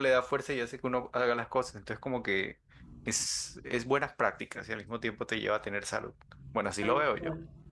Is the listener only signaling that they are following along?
No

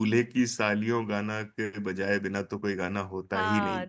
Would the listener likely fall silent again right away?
No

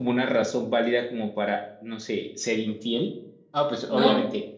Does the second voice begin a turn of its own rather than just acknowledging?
No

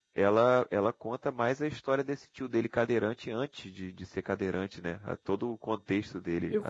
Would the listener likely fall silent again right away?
No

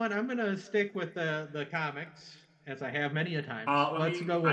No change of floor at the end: No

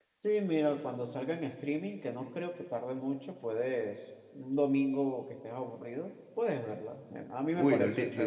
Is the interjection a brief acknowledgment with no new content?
No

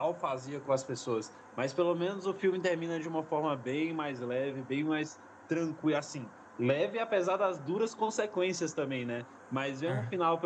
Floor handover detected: No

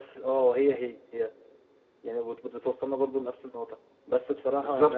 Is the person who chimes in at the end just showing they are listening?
Yes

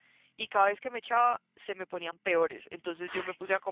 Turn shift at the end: No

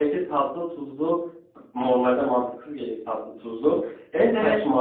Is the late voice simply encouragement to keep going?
Yes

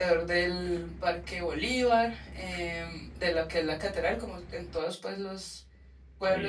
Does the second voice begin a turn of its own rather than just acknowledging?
No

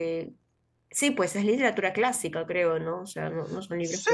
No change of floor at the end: No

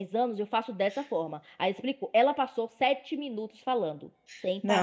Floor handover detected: Yes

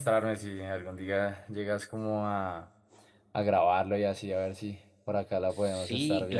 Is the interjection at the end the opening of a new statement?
Yes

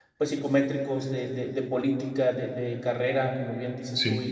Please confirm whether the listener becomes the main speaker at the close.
No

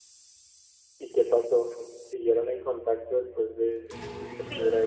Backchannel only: No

